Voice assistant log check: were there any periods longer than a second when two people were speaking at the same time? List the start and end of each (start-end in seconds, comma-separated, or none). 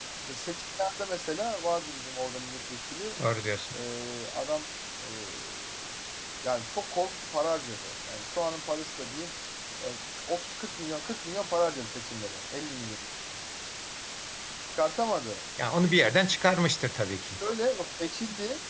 none